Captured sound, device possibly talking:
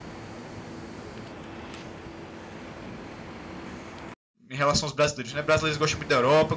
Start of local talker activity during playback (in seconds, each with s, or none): 4.5 s